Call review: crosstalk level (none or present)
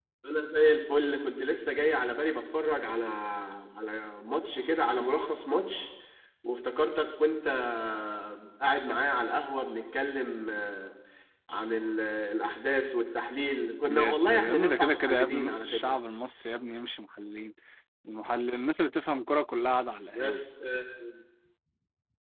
present